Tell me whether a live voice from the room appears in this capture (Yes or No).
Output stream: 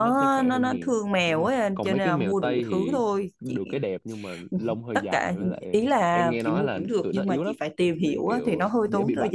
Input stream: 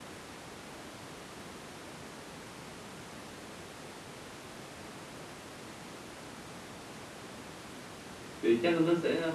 Yes